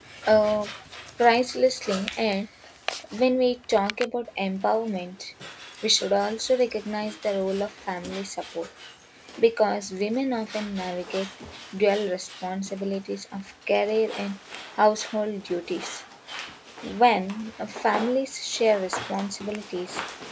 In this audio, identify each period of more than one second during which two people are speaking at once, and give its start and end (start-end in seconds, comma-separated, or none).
none